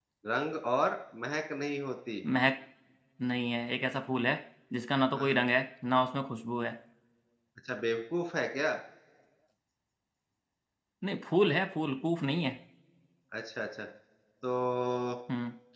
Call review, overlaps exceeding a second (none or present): none